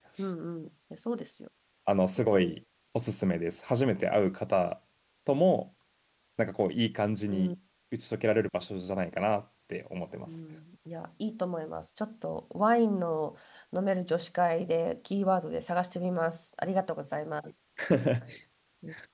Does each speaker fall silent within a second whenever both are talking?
Yes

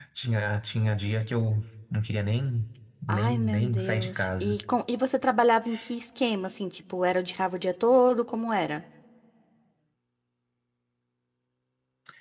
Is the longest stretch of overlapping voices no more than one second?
No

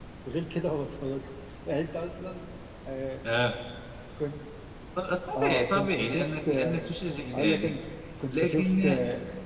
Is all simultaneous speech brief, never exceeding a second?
No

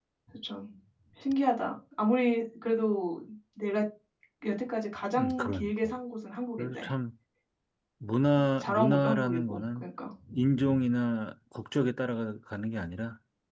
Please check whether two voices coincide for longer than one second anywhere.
Yes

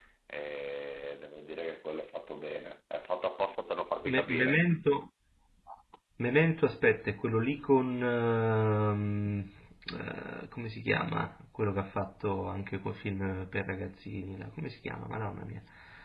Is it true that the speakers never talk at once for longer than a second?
Yes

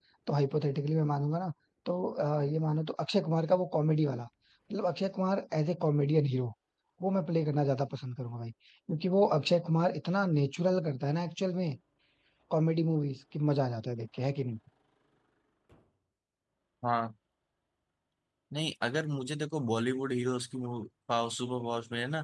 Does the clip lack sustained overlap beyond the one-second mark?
Yes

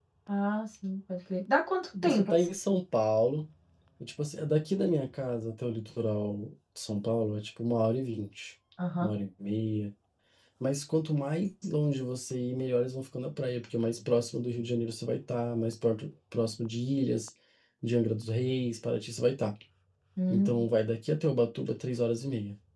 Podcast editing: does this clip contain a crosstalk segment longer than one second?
No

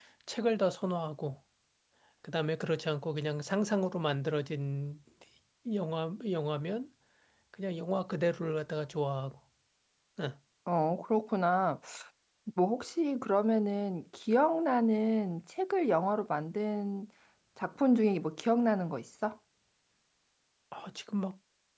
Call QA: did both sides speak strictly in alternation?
Yes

